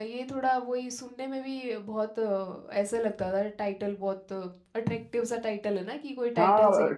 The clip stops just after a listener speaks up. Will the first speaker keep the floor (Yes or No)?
No